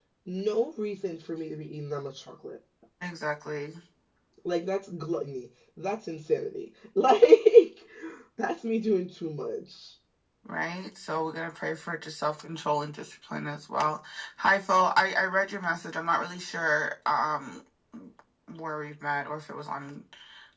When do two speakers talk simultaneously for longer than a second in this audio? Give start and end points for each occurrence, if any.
none

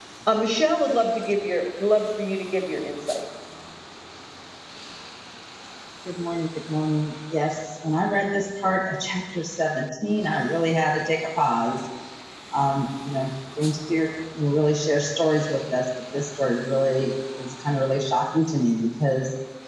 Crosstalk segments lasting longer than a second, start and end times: none

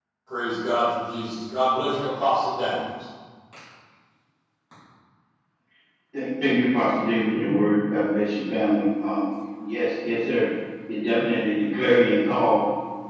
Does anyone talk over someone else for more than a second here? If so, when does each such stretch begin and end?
none

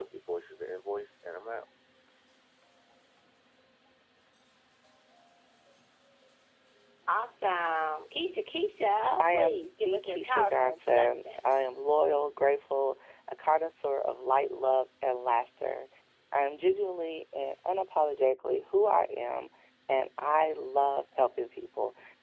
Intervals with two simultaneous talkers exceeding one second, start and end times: 9.2-11.4

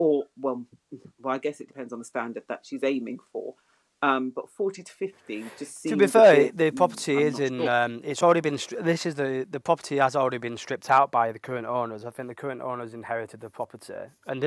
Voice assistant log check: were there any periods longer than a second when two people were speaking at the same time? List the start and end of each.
5.9-7.5

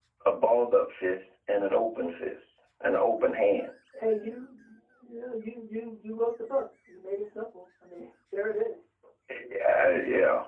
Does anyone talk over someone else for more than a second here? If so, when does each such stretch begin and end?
none

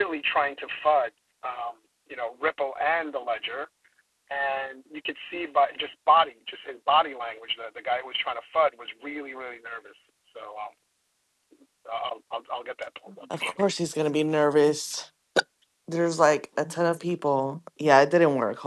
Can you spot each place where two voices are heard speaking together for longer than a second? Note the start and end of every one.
none

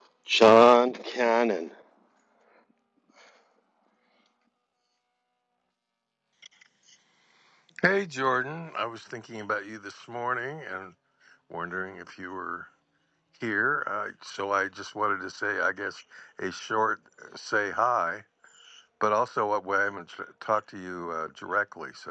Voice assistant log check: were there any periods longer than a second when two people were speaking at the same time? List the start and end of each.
none

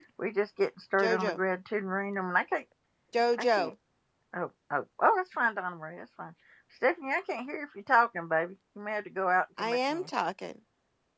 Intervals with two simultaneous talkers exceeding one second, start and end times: none

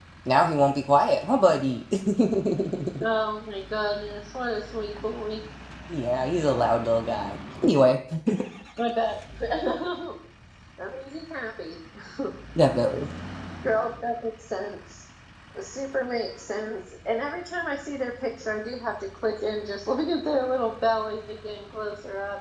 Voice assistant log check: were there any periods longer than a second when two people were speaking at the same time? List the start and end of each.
none

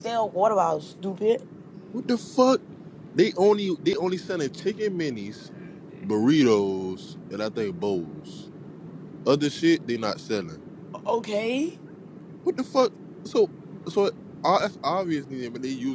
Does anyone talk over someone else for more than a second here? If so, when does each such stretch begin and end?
none

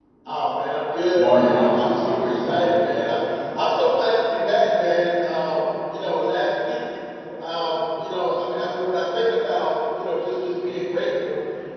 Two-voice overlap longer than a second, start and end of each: 1.2-2.7

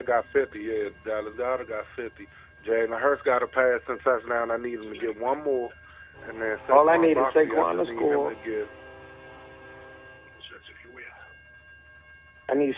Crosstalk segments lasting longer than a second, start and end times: 6.7-8.3

